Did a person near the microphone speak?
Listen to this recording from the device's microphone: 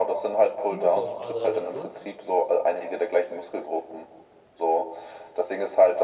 Yes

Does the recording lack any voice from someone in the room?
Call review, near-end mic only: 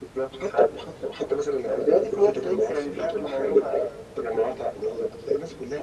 Yes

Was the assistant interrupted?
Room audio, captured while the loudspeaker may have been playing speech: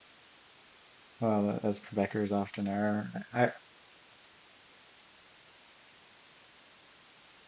Yes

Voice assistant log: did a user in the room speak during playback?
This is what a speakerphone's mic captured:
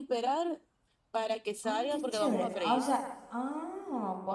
Yes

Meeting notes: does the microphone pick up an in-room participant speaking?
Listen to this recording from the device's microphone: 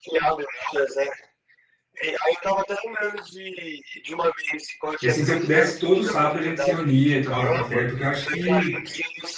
Yes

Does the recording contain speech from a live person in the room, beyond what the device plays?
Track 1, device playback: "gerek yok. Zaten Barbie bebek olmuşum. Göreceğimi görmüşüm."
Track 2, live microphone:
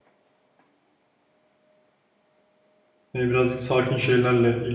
Yes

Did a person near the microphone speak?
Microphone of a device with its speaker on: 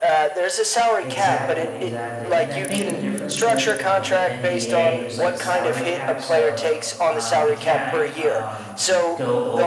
Yes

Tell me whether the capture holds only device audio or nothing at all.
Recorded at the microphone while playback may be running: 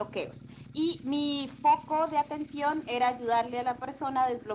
Yes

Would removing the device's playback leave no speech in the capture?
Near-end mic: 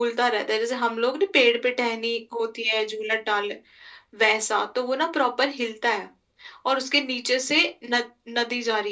Yes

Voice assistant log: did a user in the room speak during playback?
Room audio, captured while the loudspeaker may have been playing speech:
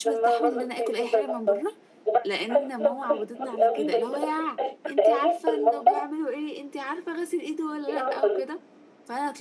Yes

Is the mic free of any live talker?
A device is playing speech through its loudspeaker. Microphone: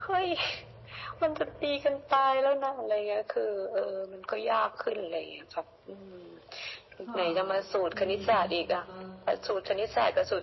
No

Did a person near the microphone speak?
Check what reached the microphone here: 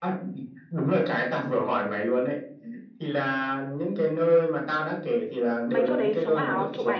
Yes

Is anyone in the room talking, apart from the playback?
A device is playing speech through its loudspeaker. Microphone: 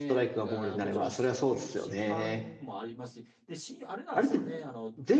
Yes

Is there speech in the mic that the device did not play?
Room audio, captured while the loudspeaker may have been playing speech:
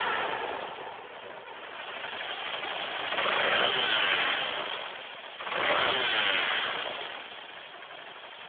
No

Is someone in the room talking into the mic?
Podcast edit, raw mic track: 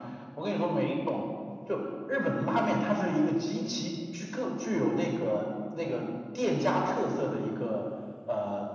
No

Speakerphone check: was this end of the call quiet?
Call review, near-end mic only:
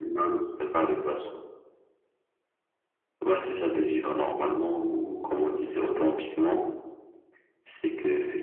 Yes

